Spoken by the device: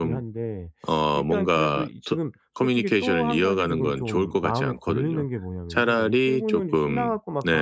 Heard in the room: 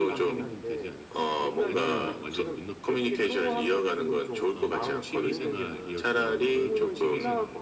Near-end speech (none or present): present